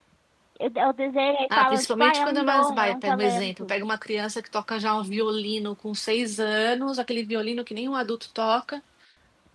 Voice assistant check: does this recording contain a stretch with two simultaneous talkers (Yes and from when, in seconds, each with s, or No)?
Yes, from 1.5 s